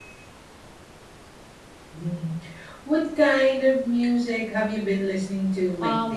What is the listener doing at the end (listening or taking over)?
taking over